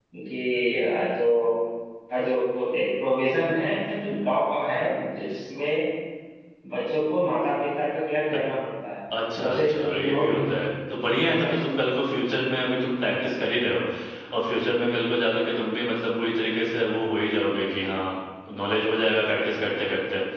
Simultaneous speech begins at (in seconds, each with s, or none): 9.4 s